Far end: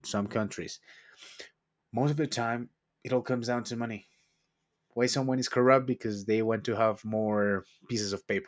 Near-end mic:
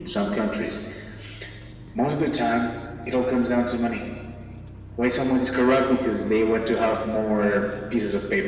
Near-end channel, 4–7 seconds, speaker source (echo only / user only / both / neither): echo only